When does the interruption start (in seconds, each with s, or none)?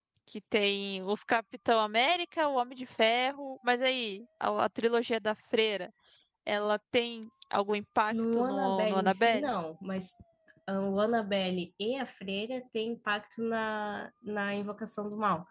8.1 s